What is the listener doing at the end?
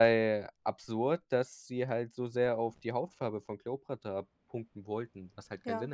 taking over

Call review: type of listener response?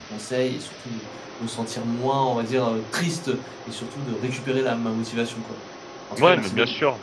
taking over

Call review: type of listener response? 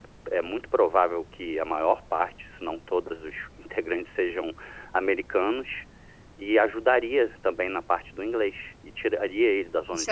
taking over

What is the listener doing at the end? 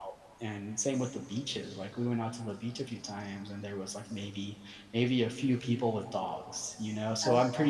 listening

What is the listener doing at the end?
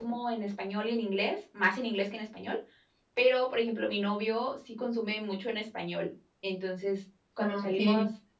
listening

